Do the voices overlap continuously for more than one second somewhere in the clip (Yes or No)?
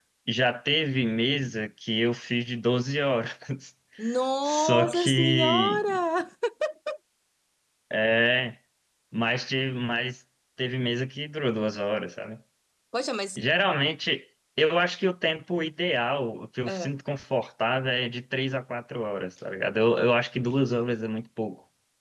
Yes